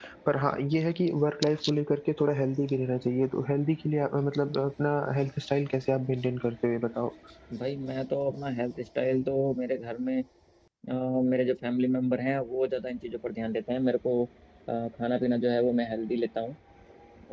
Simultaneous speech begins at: none

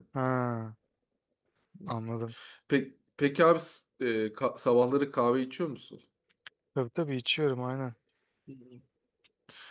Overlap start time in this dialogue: none

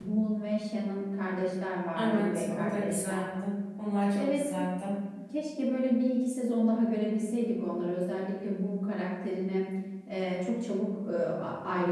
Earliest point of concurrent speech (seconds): 2 s

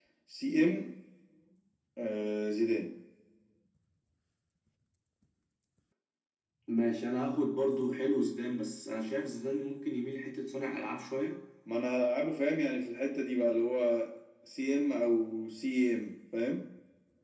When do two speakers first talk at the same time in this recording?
none

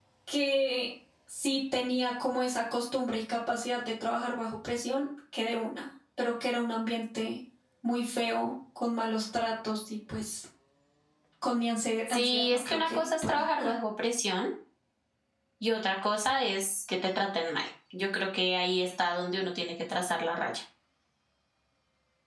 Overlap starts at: 12 s

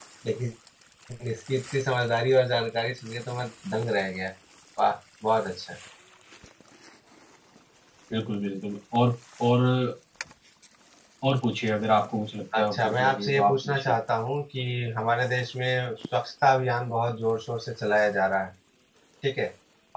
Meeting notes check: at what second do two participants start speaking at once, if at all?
13 s

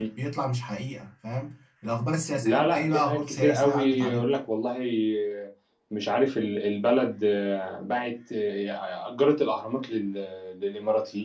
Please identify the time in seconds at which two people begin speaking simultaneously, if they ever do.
2 s

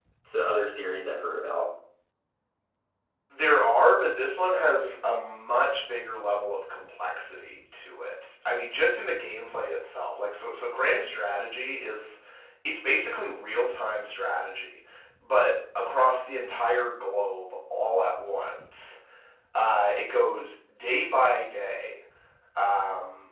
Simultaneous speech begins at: none

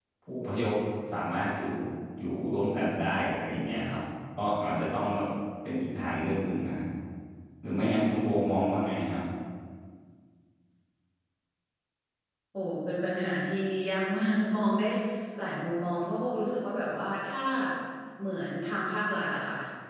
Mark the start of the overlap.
none

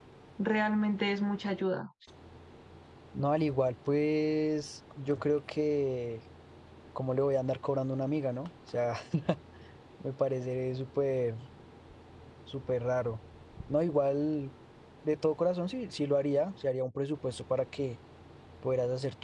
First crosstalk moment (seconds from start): none

